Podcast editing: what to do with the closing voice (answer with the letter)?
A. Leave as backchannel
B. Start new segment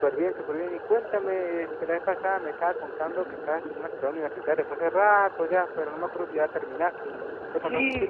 B